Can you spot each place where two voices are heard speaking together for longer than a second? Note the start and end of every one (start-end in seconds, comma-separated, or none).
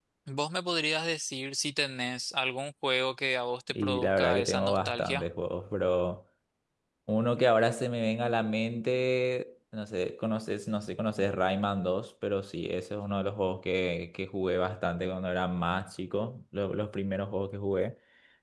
3.7-5.2